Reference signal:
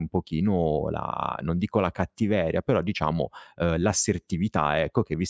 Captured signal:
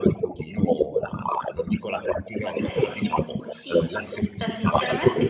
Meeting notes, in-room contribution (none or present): present